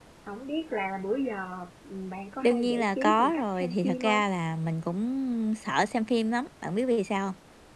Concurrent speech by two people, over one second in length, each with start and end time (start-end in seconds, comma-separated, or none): 2.4-4.2